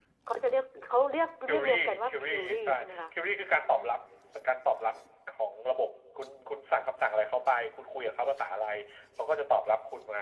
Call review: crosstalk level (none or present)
present